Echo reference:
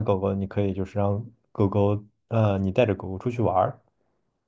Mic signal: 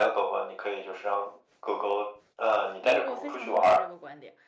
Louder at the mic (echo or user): echo